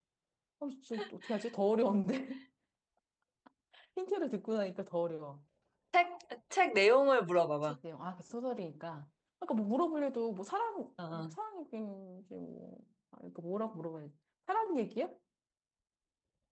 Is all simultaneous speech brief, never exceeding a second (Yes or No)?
Yes